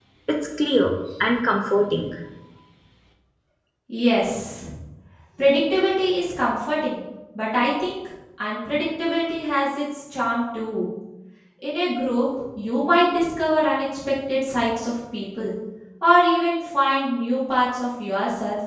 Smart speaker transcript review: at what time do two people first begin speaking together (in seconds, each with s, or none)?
none